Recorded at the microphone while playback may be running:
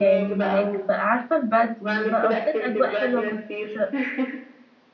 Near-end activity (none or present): present